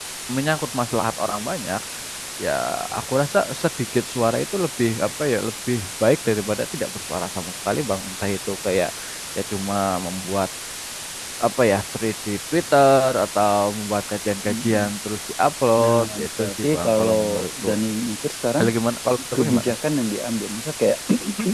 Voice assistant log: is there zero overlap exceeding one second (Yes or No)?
No